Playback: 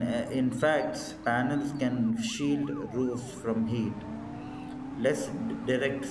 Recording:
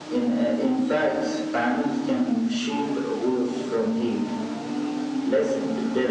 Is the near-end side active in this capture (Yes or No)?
No